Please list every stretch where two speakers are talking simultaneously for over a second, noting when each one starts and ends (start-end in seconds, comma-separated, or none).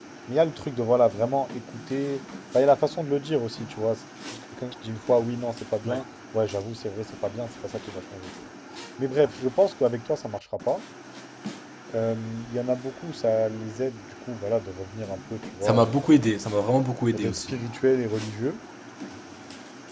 none